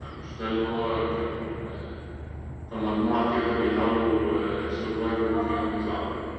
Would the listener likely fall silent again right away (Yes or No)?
No